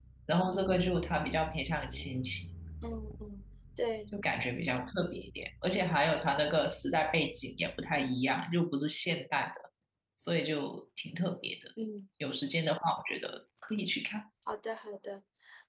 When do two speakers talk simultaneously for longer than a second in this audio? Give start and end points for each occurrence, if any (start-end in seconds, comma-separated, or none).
none